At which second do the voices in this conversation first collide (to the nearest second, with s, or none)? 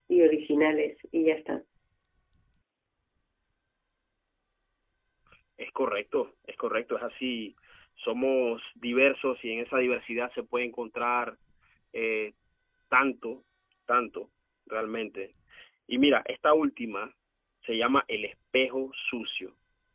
none